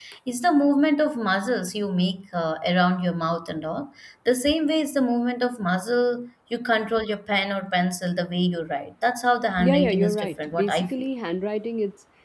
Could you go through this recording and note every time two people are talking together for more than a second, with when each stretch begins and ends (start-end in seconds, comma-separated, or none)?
9.6-11.1